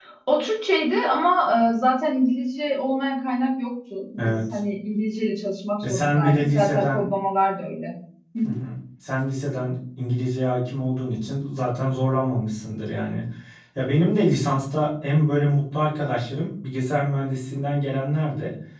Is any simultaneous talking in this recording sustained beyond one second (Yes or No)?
Yes